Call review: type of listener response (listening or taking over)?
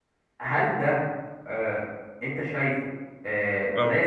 listening